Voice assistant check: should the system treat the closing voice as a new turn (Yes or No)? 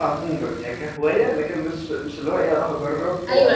Yes